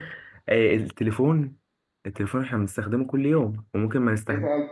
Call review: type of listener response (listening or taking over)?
taking over